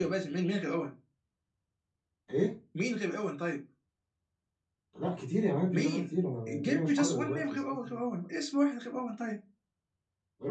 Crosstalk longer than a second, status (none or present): present